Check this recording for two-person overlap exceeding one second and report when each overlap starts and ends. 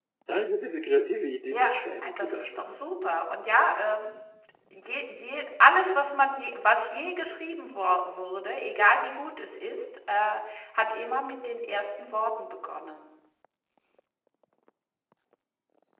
1.5-2.9

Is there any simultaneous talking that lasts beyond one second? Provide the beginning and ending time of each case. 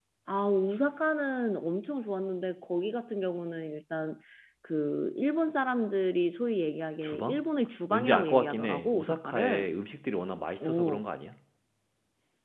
7.9-9.7

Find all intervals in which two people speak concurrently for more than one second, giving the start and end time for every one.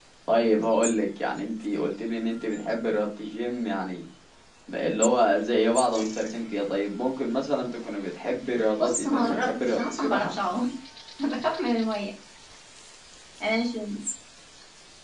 8.8-10.3

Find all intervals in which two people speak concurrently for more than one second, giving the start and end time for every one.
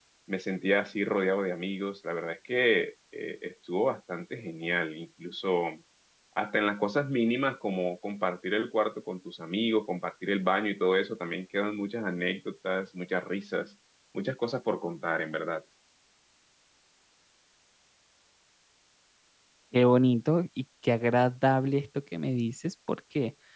none

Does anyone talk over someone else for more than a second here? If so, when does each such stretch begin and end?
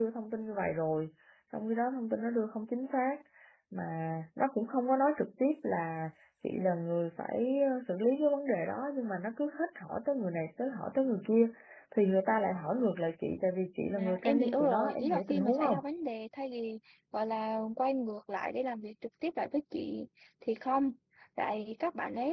13.9-15.8

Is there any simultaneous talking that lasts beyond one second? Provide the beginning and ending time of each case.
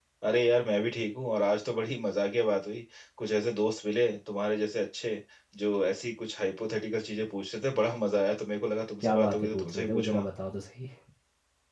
9.0-10.2

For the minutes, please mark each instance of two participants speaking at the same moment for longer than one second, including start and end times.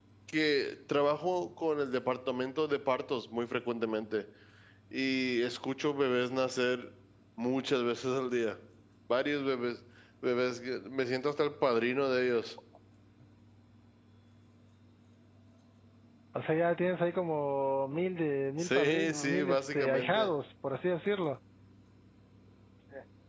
18.6-20.3

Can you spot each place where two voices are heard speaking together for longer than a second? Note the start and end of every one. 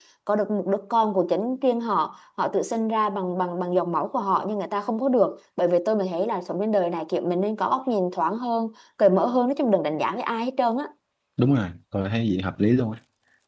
none

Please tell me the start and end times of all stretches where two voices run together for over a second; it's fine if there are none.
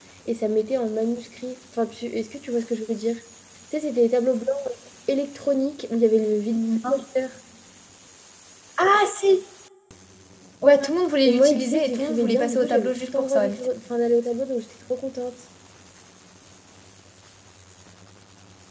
11.2-13.5

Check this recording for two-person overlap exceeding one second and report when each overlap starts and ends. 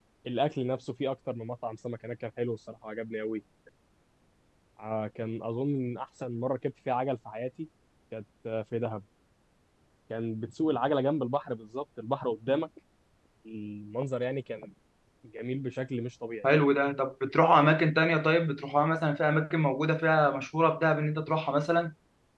none

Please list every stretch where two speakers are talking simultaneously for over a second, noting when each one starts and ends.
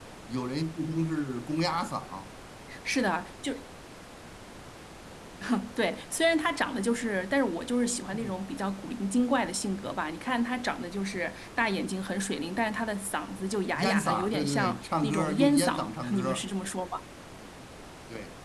13.8-16.4

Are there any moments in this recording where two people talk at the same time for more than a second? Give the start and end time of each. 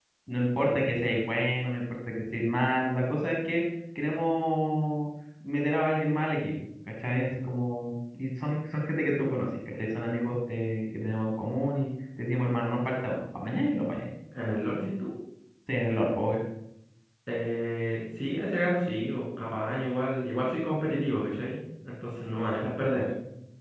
none

